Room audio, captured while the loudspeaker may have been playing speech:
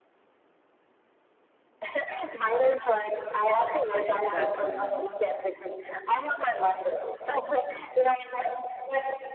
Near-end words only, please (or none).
That's very nice,